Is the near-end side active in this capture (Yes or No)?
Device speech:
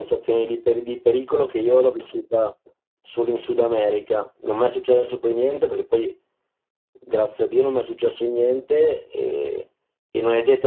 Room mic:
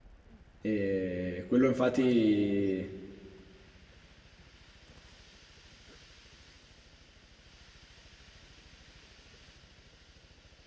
Yes